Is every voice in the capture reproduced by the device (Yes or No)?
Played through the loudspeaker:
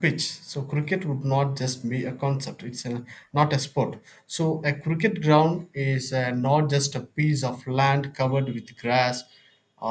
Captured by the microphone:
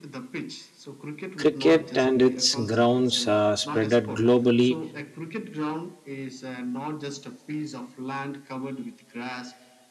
No